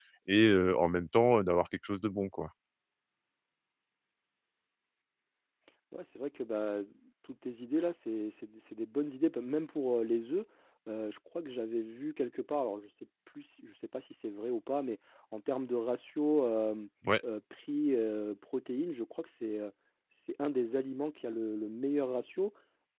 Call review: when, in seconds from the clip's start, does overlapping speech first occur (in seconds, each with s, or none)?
none